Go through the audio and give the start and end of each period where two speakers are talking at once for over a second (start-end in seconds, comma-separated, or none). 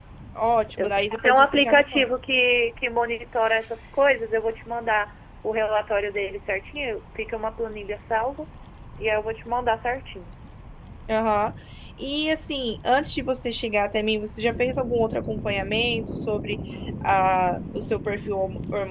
0.8-2.1